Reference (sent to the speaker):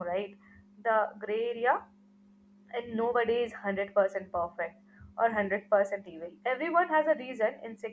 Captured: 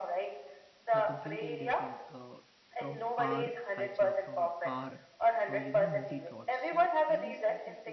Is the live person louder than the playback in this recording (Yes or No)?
No